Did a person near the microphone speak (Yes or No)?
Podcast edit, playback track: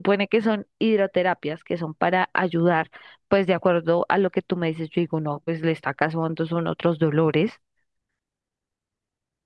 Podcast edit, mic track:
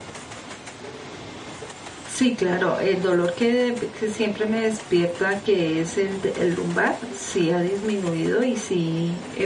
Yes